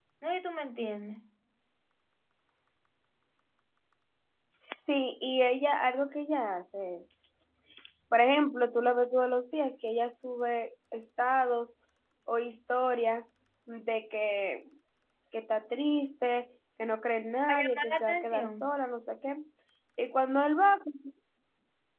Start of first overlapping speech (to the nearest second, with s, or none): 17 s